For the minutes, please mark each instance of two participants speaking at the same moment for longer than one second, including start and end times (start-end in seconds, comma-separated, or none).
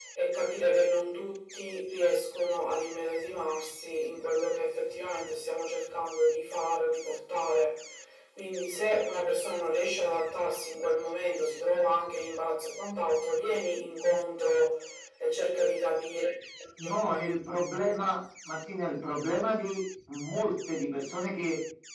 none